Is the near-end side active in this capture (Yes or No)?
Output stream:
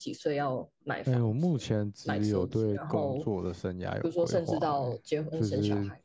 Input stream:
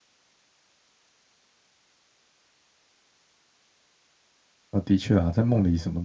Yes